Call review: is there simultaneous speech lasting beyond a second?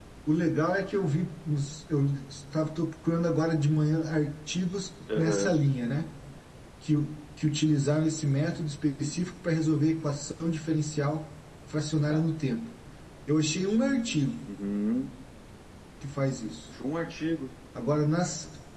No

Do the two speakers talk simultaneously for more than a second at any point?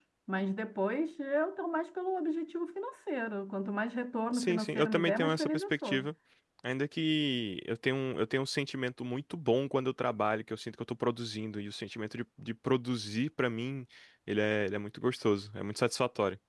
Yes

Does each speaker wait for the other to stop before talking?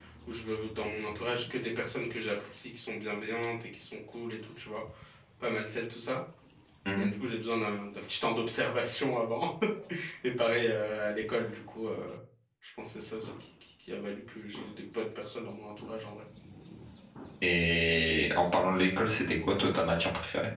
Yes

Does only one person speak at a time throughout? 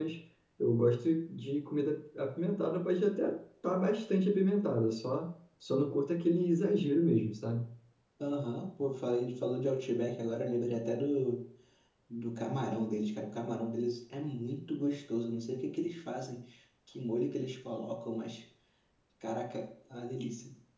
Yes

